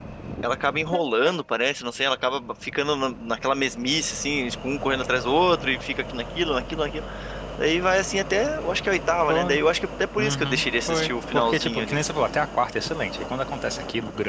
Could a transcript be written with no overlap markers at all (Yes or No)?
No